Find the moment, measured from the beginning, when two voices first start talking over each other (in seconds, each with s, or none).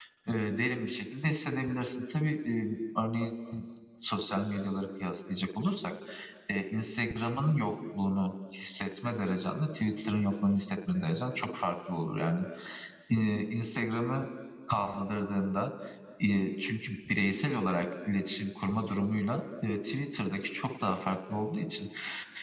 none